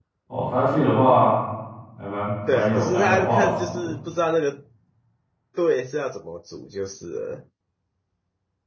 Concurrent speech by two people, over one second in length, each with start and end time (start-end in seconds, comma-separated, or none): 2.5-3.9